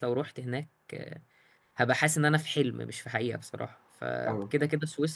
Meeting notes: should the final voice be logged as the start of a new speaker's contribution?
No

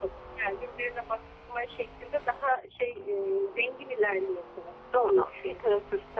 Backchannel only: No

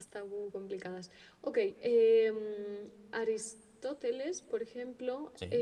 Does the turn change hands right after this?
No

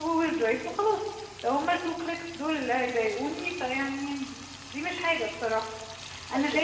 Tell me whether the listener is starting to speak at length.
Yes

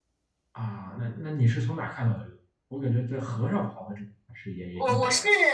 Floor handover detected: Yes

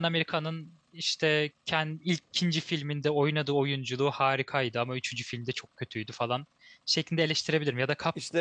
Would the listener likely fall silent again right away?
Yes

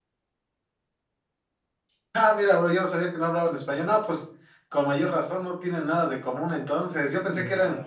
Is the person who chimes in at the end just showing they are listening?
Yes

